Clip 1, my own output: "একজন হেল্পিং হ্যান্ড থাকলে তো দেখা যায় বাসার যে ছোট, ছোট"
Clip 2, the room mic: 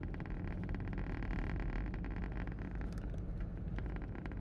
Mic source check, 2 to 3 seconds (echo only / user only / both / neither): neither